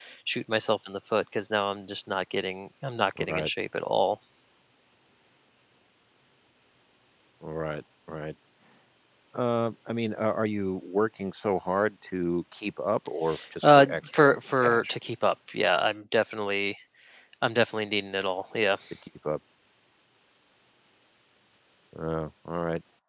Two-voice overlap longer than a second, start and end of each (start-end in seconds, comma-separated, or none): 13.6-14.9